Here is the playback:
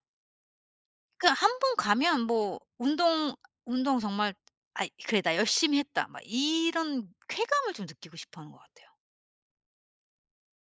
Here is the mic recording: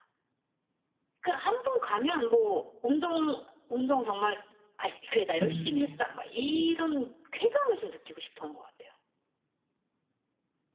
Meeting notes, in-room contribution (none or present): present